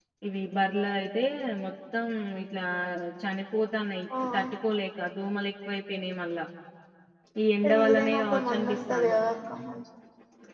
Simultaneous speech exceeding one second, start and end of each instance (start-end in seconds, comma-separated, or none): 7.6-9.2